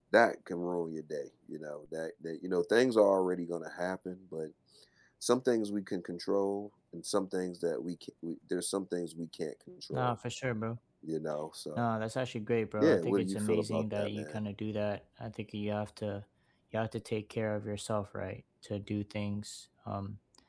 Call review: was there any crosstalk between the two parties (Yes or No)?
Yes